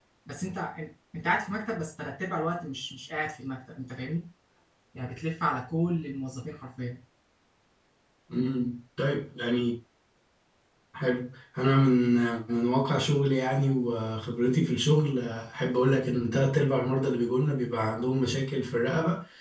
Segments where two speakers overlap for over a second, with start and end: none

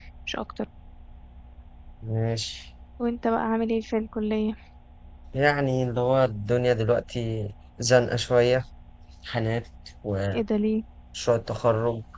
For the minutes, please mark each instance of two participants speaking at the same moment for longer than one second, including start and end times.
none

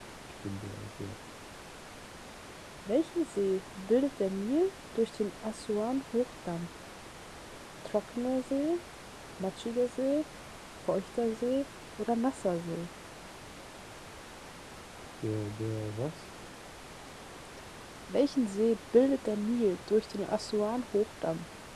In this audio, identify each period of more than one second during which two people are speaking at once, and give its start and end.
none

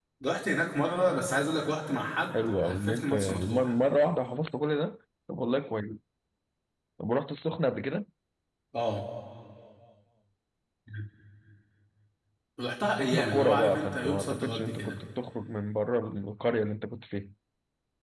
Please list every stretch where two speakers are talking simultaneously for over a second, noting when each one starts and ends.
2.3-3.8, 12.8-15.0

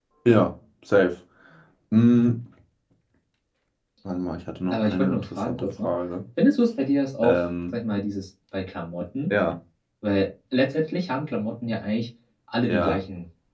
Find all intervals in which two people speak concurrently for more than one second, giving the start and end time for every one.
4.7-5.9

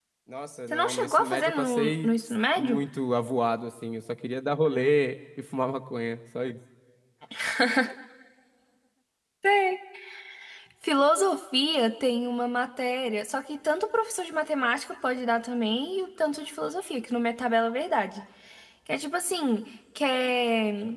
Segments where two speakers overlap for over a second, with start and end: 0.7-2.1

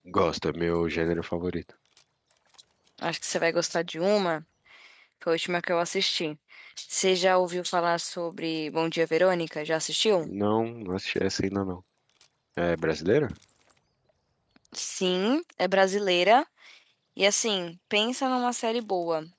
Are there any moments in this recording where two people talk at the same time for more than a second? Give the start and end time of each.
none

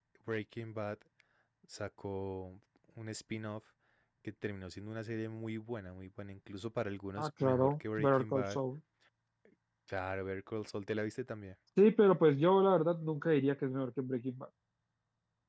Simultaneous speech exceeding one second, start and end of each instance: 7.2-8.6

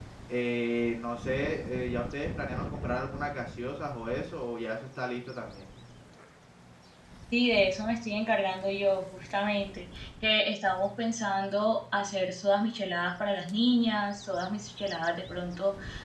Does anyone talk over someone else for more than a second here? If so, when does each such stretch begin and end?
none

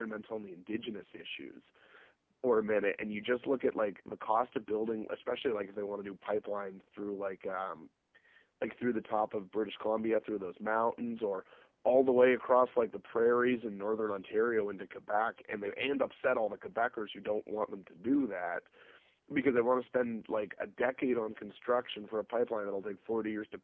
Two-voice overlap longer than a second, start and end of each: none

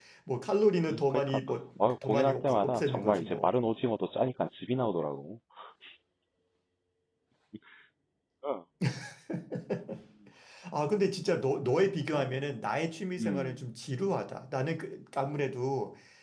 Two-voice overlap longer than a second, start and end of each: 2.0-3.5

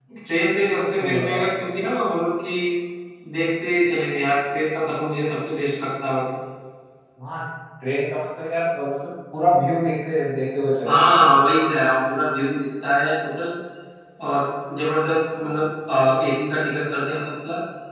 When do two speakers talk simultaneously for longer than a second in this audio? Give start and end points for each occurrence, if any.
none

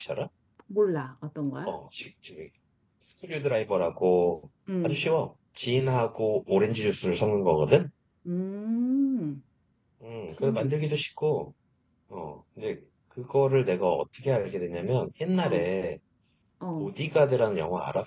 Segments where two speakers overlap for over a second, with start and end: none

